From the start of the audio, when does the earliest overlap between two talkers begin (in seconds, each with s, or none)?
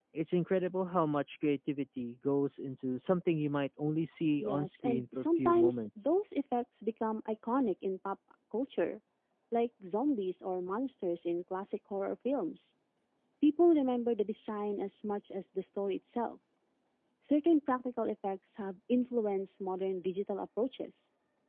4.4 s